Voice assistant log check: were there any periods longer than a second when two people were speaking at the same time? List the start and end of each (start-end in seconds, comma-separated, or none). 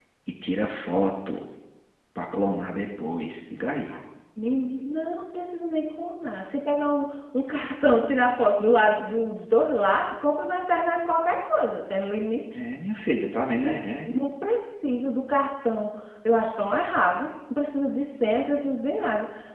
none